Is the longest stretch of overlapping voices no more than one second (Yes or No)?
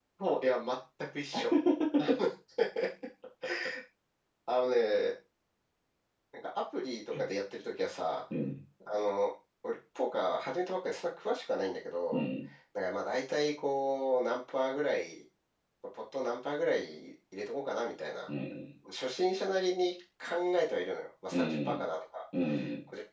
Yes